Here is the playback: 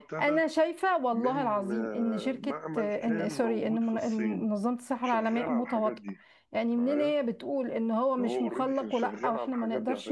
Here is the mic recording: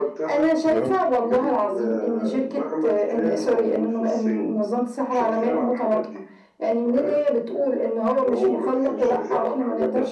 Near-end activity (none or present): present